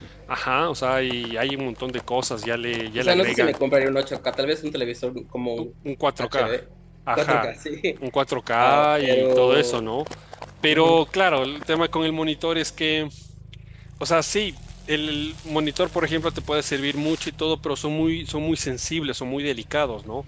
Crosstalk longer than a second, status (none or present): present